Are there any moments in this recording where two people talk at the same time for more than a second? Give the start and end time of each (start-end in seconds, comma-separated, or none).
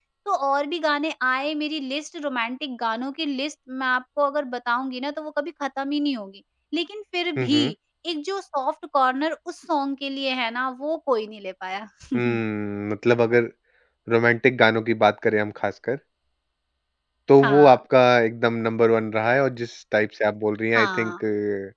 none